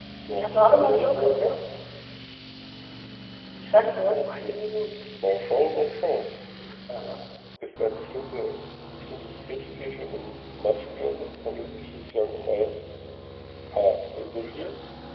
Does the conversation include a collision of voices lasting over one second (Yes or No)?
Yes